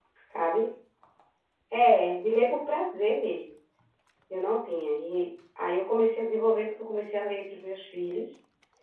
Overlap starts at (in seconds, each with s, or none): none